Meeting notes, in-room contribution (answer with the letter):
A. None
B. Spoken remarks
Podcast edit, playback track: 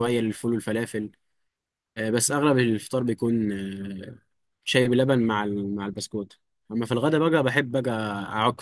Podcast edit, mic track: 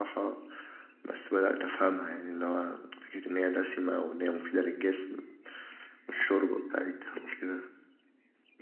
B